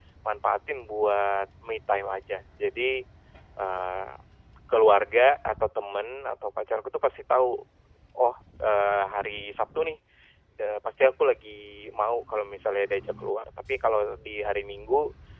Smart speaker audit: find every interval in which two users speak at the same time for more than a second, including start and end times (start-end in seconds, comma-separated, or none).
none